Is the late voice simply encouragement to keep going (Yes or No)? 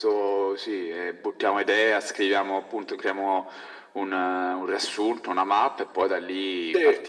No